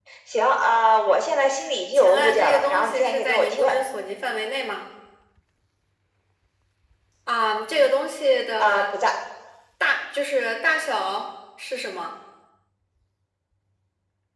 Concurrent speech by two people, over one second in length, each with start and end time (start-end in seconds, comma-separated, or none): 1.9-3.7